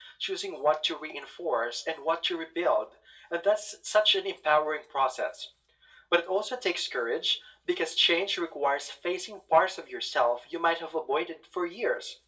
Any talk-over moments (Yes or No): No